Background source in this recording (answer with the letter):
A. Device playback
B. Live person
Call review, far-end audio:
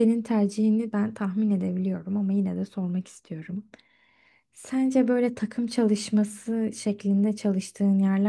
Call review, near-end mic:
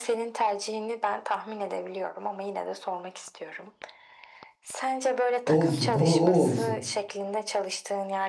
A